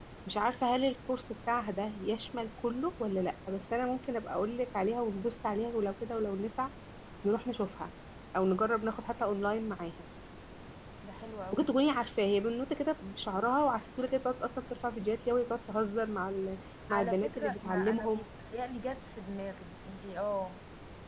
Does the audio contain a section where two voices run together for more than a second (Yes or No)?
Yes